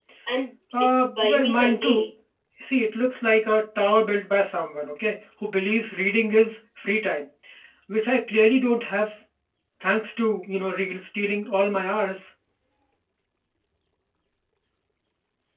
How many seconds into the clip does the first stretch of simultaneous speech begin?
0.8 s

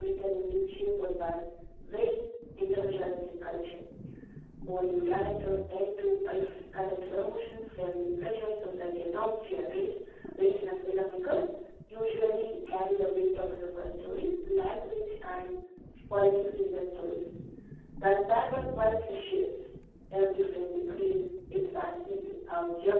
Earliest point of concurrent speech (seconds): none

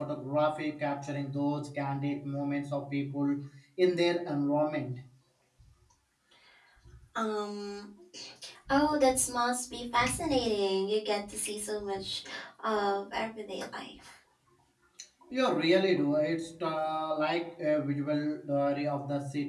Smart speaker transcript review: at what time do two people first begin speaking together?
none

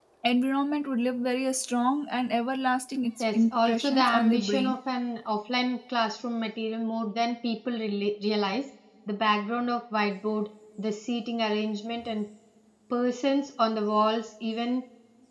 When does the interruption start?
3.2 s

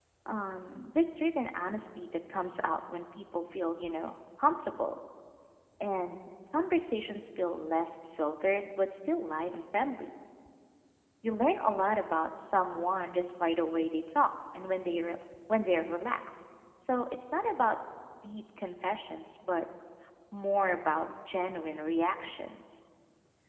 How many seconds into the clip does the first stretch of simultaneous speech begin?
none

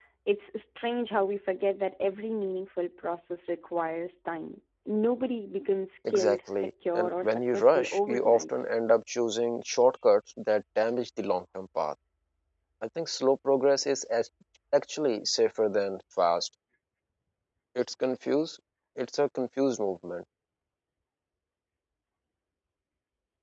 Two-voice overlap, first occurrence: 6.0 s

